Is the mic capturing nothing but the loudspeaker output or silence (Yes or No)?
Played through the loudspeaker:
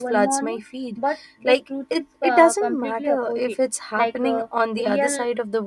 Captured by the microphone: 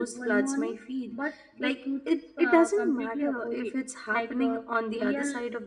Yes